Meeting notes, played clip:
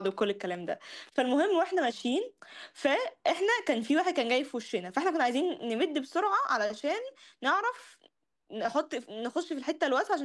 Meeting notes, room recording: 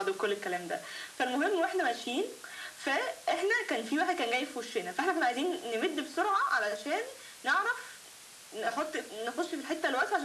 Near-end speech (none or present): none